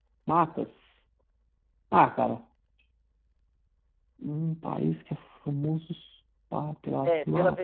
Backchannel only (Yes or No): No